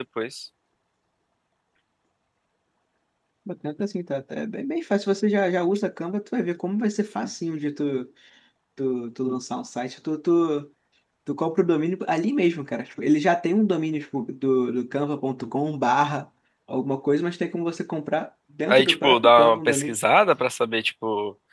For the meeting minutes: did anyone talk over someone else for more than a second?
Yes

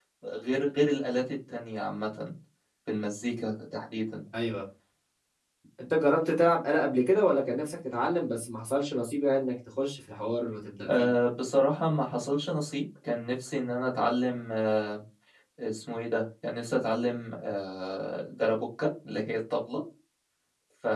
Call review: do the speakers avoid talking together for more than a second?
Yes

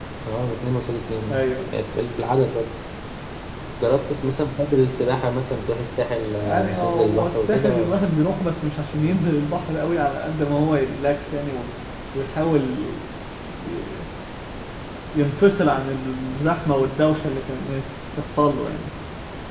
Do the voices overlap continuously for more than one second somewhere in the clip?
Yes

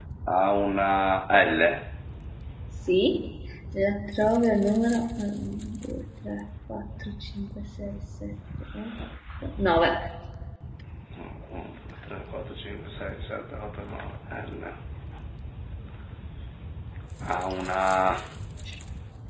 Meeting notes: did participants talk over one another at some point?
No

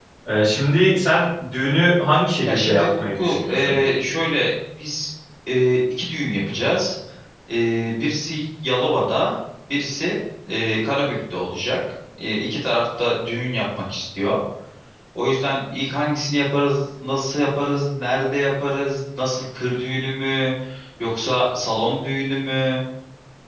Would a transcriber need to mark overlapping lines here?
Yes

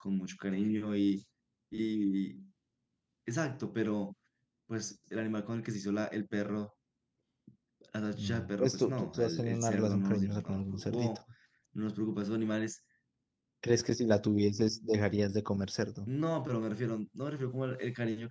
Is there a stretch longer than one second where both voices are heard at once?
Yes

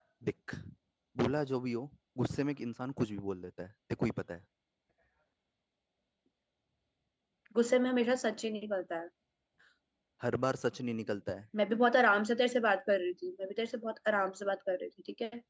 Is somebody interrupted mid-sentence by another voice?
No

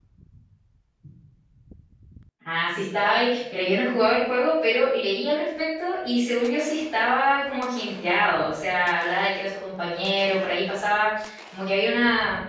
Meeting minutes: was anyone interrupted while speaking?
No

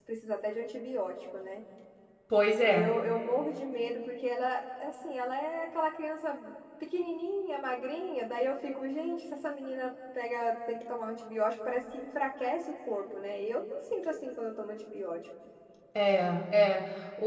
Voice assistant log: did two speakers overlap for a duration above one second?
No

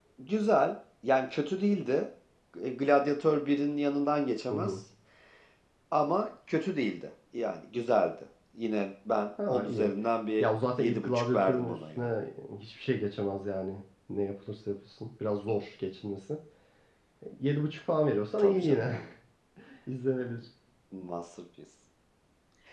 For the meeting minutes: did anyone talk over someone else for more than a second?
Yes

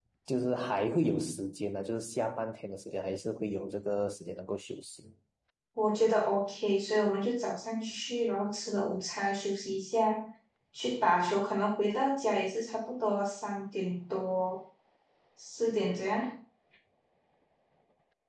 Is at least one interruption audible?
No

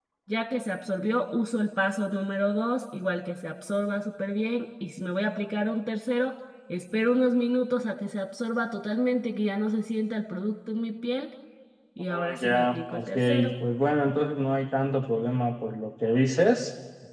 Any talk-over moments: Yes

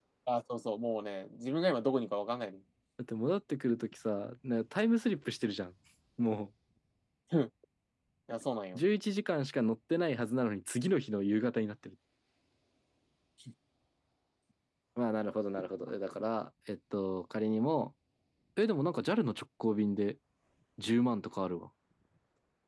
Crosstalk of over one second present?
No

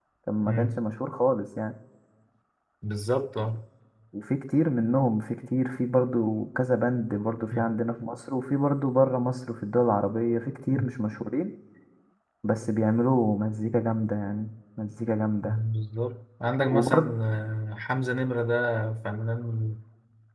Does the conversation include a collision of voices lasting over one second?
No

